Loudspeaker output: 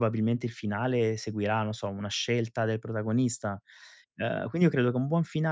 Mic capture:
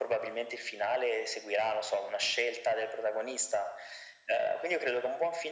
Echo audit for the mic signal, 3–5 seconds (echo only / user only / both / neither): echo only